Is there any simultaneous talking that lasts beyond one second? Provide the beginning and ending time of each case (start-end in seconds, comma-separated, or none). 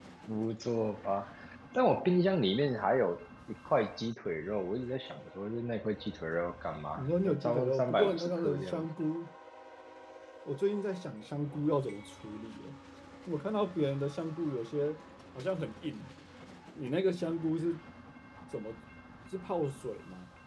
7.0-8.9